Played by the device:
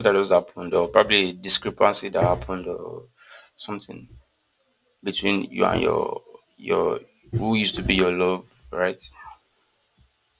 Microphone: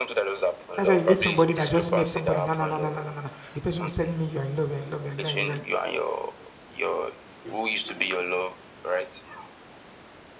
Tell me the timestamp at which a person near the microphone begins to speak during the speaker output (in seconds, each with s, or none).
0.7 s